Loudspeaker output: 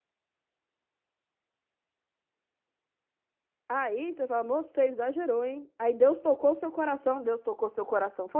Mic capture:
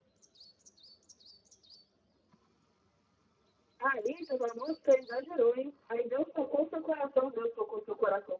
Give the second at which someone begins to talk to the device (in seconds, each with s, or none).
none